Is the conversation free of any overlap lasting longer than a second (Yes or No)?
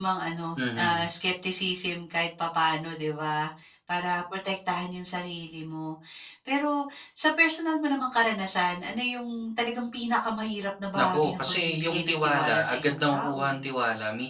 No